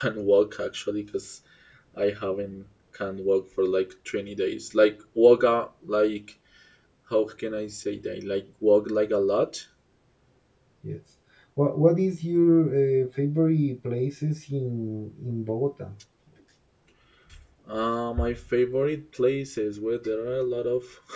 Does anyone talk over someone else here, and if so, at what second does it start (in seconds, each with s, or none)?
none